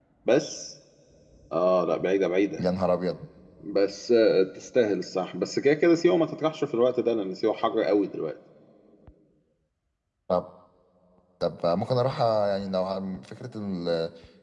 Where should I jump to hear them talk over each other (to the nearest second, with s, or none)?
none